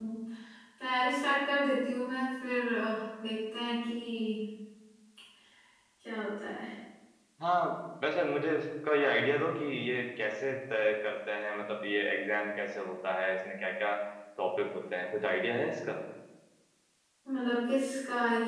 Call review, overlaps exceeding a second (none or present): none